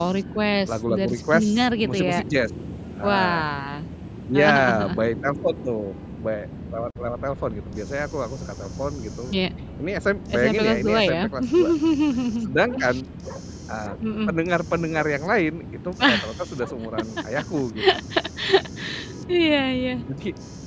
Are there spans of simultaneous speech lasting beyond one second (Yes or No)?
Yes